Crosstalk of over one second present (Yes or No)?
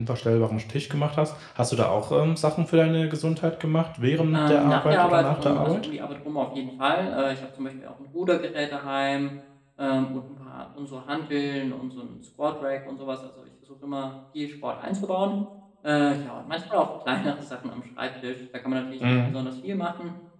Yes